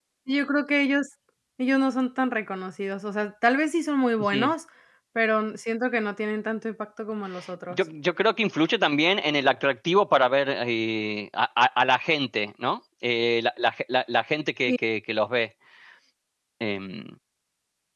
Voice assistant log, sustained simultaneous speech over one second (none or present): none